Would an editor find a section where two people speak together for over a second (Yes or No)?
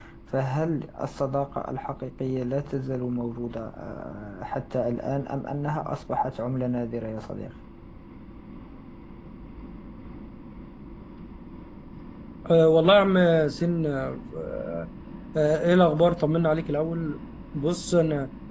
No